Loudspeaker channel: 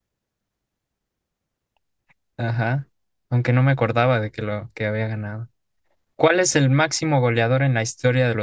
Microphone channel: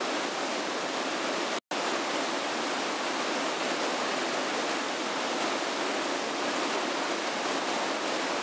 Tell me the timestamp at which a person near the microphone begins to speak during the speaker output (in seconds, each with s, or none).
none